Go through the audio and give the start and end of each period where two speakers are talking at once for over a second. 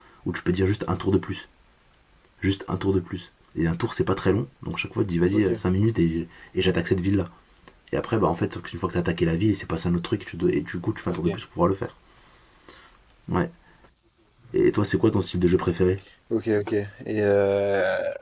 none

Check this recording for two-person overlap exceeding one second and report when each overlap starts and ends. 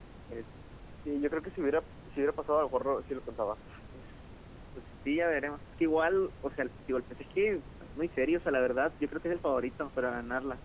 none

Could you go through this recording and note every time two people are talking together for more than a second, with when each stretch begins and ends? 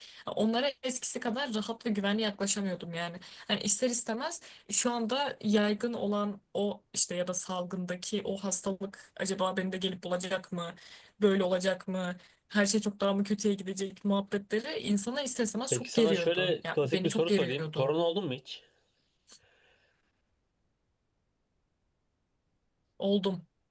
15.7-17.9

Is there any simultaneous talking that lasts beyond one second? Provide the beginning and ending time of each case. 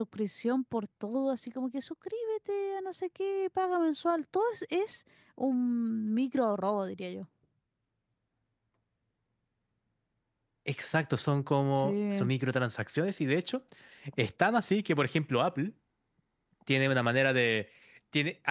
none

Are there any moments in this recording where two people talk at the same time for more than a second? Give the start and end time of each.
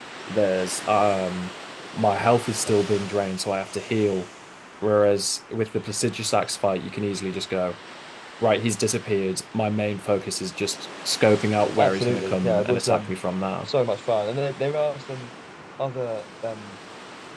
11.8-13.1

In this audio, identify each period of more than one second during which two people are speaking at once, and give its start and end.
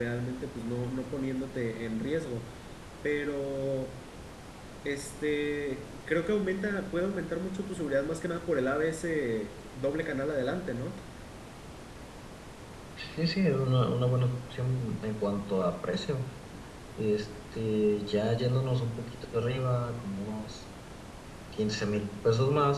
none

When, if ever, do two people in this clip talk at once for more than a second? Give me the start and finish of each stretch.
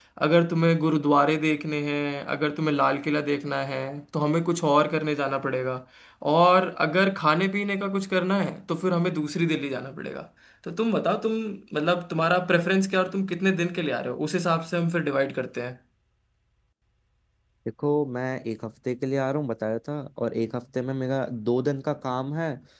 none

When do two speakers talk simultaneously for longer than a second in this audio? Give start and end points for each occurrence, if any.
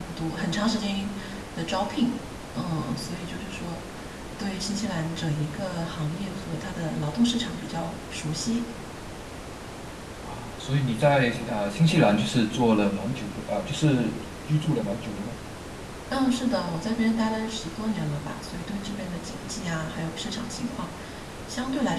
none

